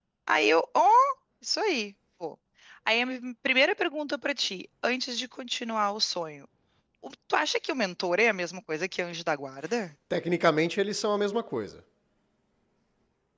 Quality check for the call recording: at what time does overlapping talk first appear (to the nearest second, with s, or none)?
none